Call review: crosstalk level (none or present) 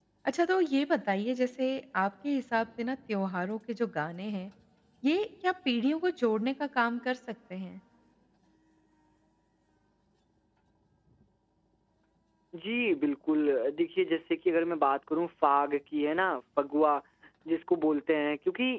none